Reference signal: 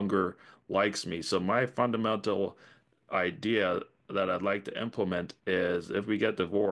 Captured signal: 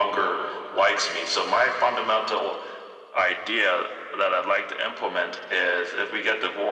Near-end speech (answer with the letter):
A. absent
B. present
A